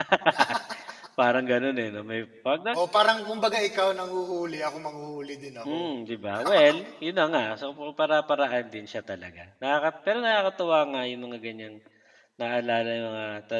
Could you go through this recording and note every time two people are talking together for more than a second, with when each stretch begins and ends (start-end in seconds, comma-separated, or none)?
none